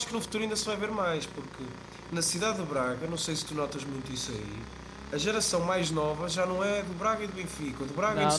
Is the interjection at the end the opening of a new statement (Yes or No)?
Yes